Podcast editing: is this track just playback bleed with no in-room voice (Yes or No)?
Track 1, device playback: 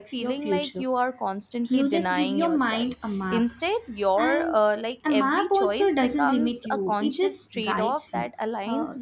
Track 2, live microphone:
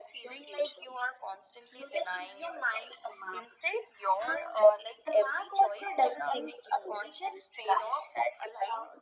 Yes